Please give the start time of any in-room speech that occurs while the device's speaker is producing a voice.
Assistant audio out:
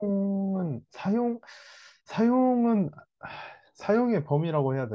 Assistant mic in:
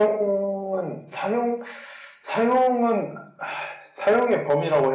none

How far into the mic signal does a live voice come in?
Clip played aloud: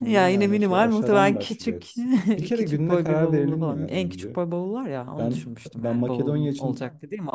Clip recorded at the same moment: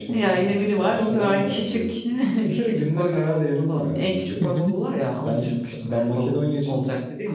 4.4 s

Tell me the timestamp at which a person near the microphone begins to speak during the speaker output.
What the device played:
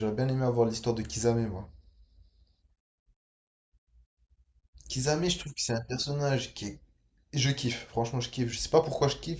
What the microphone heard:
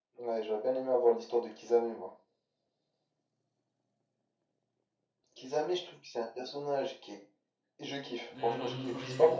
8.3 s

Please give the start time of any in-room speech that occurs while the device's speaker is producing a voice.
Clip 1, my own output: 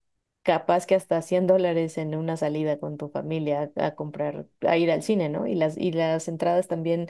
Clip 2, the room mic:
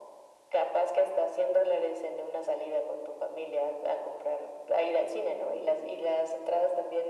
none

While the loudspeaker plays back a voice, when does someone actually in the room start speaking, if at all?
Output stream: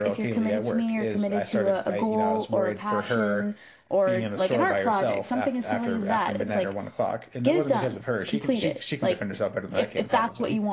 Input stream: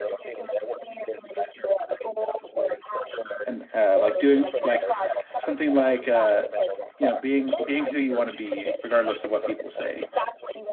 3.5 s

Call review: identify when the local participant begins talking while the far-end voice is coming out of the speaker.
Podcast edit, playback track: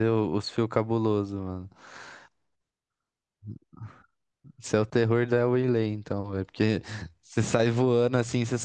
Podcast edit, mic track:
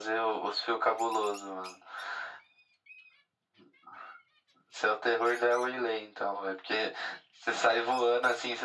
none

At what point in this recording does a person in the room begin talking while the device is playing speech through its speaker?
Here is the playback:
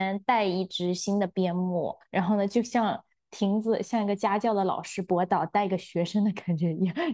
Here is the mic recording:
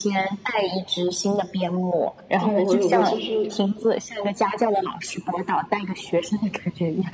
2.4 s

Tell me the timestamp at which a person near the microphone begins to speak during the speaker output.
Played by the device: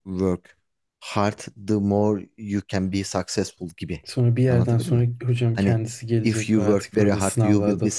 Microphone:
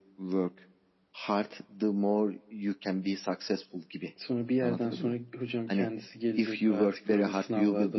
none

